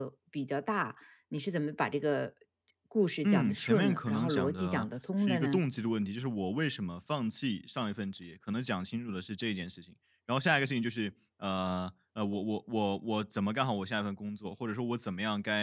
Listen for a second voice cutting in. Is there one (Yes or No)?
Yes